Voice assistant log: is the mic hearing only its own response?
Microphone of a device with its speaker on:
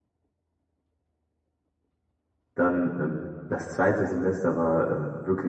No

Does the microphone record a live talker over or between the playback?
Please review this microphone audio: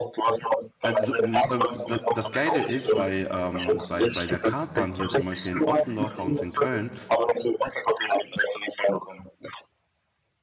Yes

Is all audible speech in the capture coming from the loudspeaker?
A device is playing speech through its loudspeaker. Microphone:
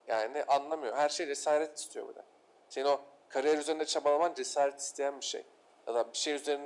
Yes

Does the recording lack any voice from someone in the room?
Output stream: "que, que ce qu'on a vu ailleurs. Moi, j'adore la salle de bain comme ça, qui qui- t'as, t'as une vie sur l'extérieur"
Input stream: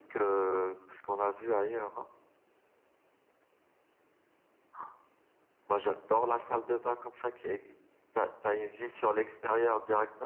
Yes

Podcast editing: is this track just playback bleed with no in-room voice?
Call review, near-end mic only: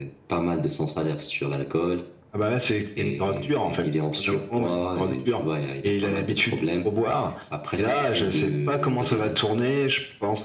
Yes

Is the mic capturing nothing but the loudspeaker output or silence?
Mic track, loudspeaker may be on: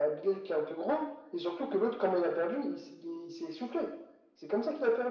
Yes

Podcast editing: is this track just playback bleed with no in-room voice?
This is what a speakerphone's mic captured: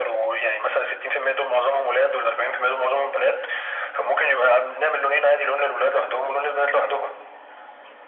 Yes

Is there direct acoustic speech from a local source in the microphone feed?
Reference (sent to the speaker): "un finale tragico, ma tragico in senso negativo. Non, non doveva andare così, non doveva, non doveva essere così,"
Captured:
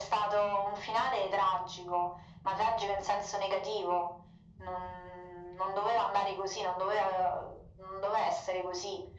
No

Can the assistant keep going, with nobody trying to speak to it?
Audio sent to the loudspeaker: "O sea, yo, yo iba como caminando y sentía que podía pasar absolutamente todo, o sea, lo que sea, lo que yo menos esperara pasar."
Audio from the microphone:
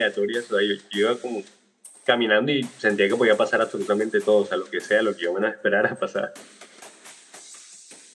Yes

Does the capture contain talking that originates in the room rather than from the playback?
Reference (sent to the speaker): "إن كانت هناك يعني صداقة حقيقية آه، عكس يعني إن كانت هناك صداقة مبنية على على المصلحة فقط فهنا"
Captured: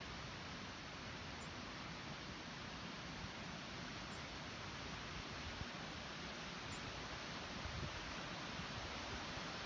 No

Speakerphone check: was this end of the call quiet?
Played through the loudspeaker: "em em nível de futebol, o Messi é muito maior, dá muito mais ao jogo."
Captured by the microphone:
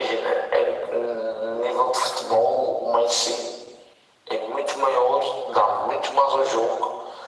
Yes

